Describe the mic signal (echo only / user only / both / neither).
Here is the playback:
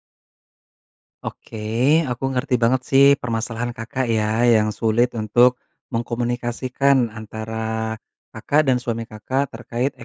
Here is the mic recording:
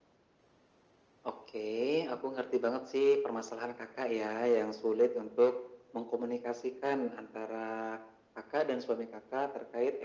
echo only